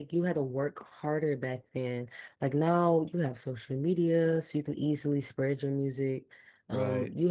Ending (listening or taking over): listening